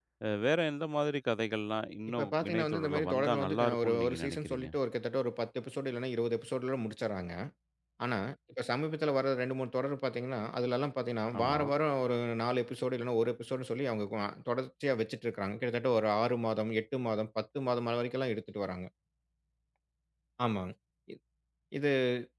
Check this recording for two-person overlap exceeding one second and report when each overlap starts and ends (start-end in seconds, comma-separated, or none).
2.1-4.7